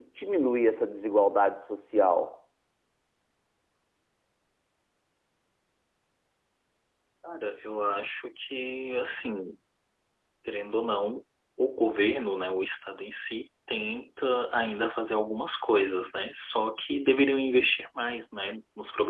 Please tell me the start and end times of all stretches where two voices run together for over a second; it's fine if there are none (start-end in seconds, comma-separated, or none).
none